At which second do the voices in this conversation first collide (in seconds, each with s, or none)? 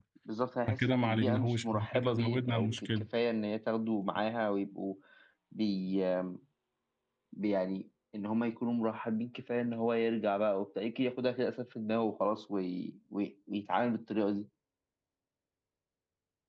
0.7 s